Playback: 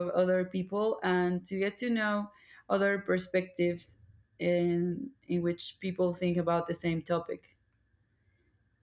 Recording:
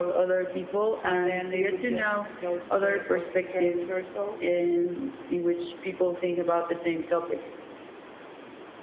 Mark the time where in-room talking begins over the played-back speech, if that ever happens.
1.0 s

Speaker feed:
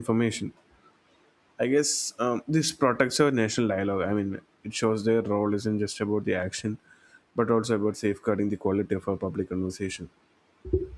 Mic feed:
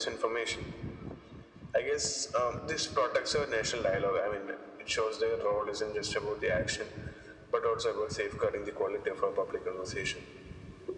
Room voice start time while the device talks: none

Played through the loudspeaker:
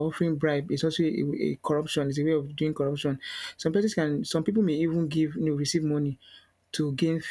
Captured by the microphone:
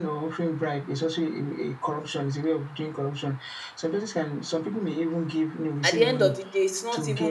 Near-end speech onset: 5.8 s

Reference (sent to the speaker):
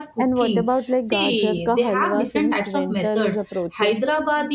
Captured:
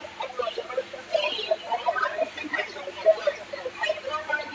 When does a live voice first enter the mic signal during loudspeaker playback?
none

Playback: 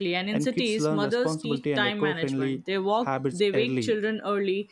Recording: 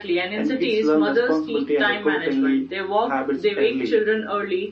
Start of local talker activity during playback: none

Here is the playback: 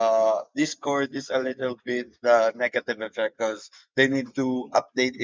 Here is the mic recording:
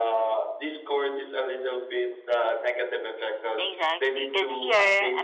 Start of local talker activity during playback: 3.6 s

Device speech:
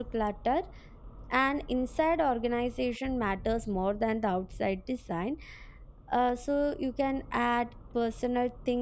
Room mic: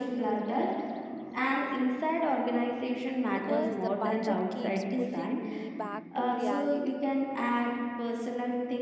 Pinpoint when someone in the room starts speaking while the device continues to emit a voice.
3.3 s

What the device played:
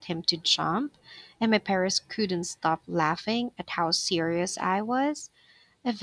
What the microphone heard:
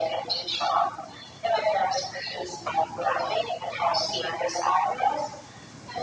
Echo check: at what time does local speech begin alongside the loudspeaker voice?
none

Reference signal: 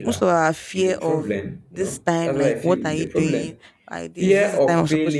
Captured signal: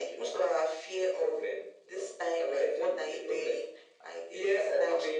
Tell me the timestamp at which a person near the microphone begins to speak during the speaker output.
none

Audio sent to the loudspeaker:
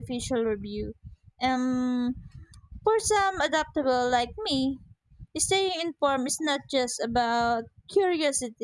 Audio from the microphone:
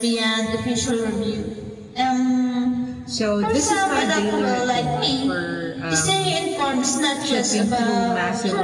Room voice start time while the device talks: 3.1 s

